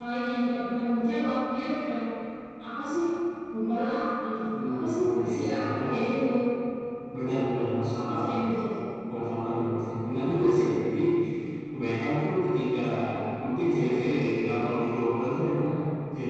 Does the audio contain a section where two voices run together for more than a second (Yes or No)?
Yes